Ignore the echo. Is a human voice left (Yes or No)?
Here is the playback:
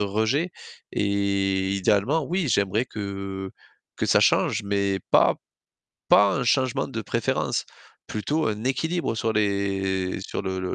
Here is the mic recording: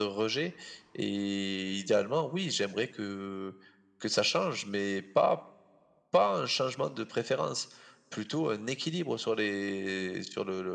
No